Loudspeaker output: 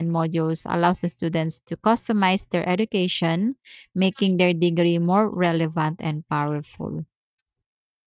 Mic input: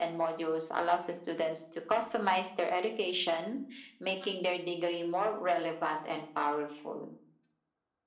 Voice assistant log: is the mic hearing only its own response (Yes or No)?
Yes